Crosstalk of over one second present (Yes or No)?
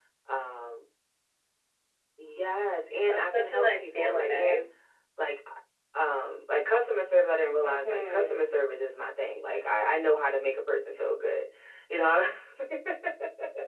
Yes